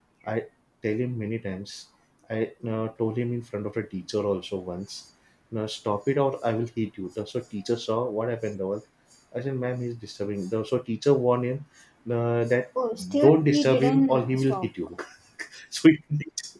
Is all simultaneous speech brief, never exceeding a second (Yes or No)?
No